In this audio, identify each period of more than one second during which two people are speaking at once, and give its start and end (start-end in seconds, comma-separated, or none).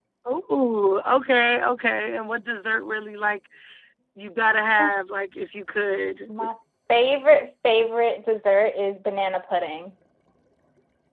none